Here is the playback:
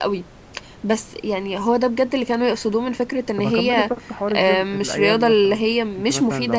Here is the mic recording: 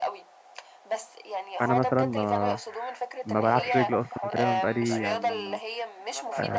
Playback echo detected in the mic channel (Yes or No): Yes